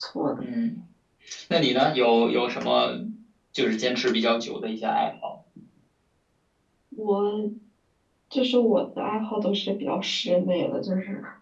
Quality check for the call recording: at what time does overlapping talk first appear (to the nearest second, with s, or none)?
none